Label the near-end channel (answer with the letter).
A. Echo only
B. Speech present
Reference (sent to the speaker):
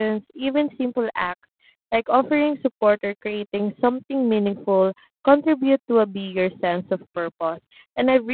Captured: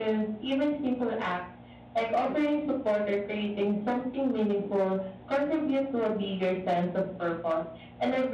A